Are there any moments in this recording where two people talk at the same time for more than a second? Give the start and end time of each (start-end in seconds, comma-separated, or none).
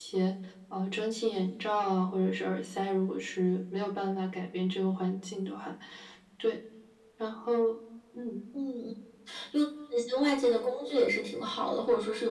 none